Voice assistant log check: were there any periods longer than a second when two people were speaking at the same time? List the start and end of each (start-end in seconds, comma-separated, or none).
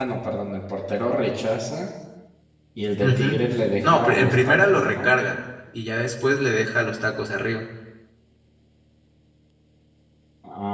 3.8-5.2